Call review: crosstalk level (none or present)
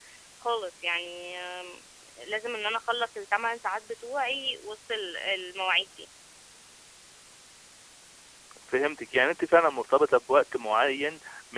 none